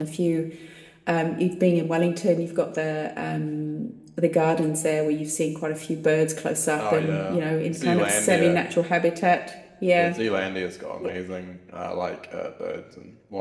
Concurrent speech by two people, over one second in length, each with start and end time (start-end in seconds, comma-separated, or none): 6.8-8.6